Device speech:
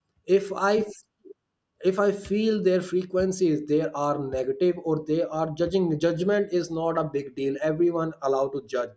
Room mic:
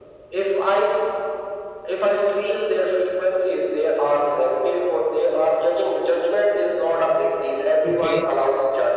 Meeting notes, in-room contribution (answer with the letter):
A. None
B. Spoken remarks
B